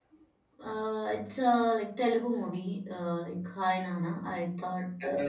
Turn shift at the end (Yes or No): Yes